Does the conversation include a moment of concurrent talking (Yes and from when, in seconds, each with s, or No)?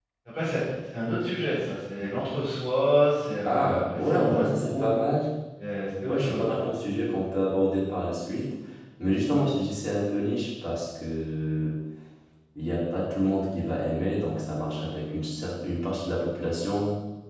Yes, from 3.5 s